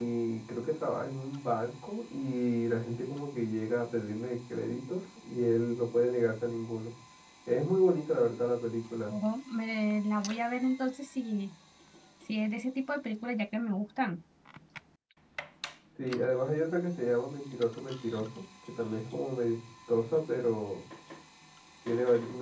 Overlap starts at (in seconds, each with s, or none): none